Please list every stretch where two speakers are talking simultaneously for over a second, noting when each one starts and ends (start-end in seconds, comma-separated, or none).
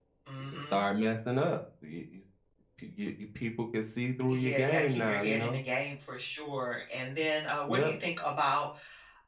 4.3-5.6